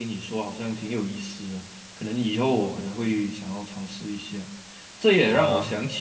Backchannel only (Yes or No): Yes